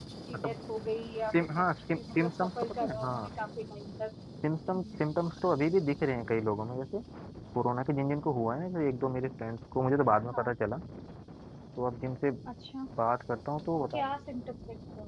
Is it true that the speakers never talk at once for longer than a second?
No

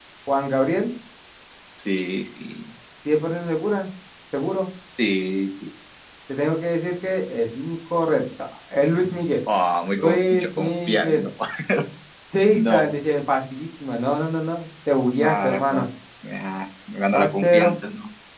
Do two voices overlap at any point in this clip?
Yes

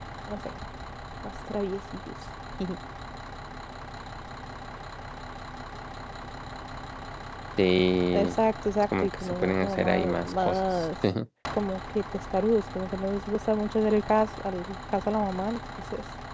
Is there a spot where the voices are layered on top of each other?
Yes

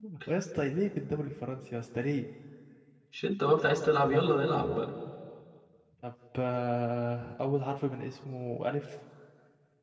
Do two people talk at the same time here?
No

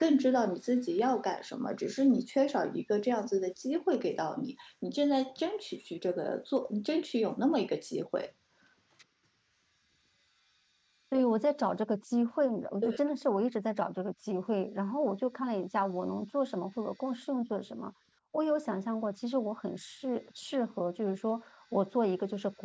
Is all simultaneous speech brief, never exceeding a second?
Yes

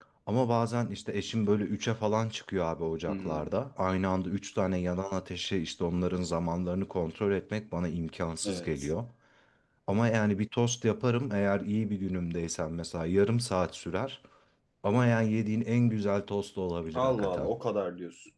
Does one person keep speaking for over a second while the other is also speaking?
No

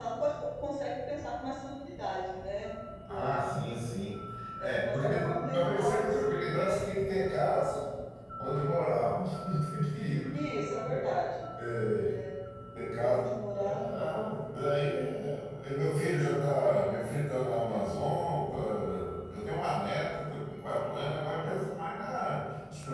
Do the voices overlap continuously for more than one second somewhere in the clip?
Yes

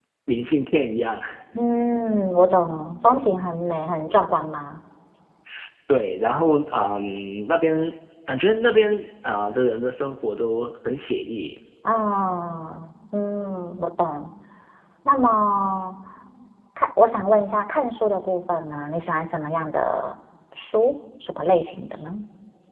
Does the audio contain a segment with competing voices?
No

